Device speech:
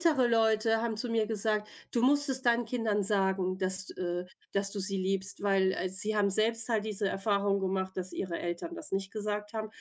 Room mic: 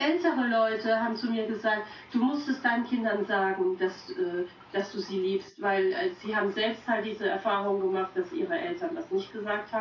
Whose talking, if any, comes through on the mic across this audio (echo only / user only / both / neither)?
echo only